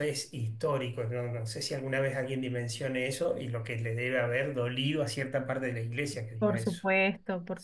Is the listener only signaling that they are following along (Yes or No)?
No